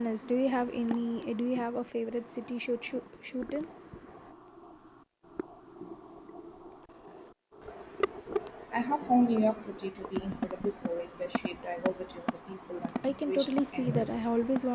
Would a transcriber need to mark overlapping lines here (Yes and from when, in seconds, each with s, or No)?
Yes, from 13.0 s